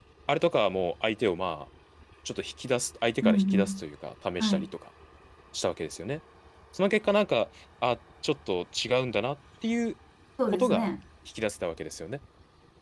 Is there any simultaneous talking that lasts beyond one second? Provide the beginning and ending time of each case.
none

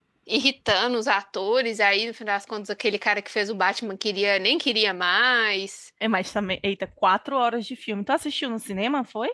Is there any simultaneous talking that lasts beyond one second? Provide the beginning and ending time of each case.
none

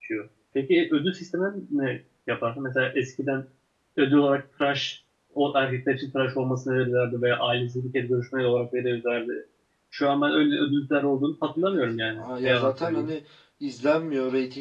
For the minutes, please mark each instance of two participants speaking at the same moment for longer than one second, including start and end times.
11.6-13.1

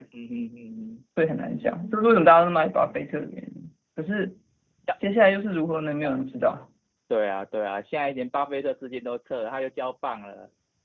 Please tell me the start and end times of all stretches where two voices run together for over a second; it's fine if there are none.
none

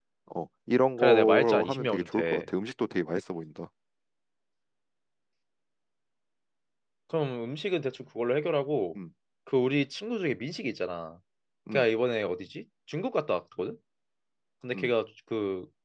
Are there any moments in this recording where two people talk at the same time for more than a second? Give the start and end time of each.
1.0-2.5

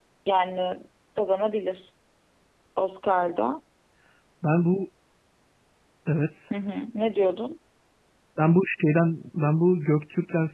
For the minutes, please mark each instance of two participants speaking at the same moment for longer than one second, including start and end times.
none

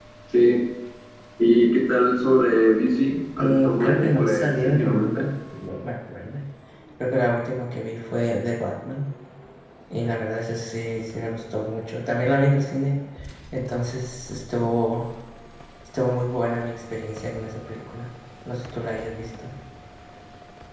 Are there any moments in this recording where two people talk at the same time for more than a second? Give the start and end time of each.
3.4-5.2

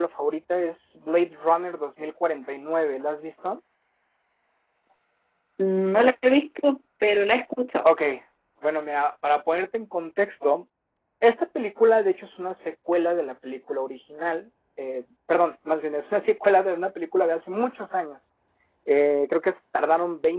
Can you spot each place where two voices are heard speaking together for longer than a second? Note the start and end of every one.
none

